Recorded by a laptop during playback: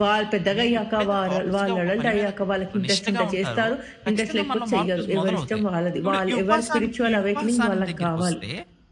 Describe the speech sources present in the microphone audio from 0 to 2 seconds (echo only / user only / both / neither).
both